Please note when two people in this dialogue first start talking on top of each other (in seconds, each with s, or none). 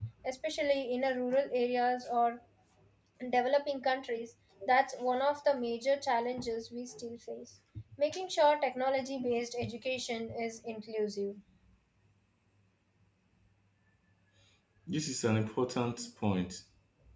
none